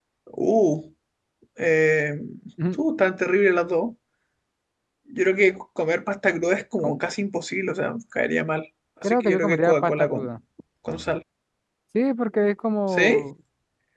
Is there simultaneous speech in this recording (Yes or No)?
Yes